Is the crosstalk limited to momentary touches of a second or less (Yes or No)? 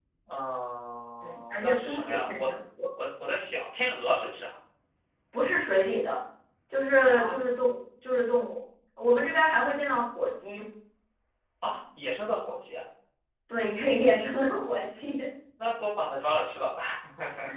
No